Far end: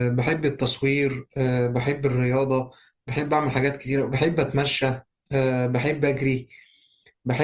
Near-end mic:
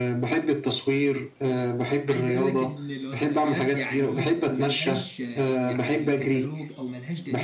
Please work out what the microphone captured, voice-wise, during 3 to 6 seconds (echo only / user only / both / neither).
both